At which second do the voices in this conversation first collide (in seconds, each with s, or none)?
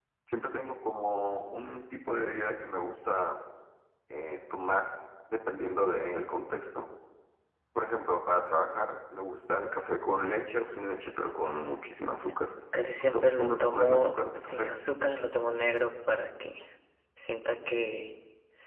13.1 s